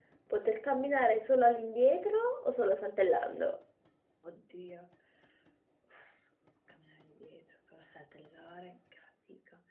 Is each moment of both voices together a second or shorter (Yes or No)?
Yes